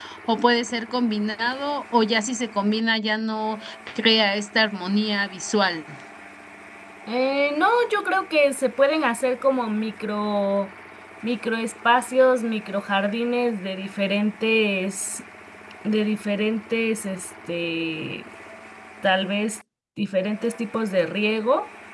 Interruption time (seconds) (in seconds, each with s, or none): none